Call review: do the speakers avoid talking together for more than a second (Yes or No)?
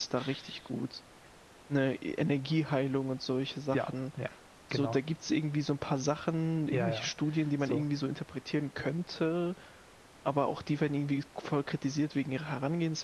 Yes